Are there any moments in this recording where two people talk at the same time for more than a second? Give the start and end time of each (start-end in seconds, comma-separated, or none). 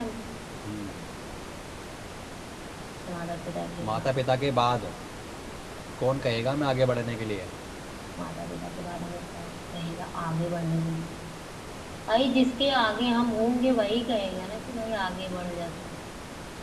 none